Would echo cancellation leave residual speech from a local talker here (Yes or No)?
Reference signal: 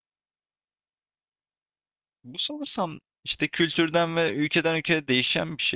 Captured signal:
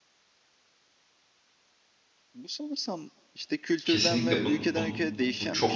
Yes